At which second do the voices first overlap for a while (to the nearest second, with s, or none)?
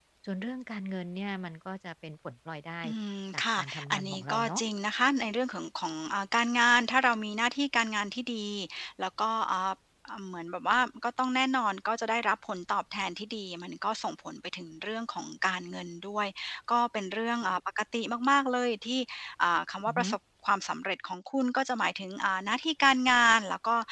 3 s